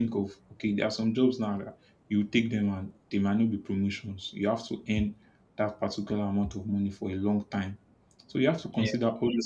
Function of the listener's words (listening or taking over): listening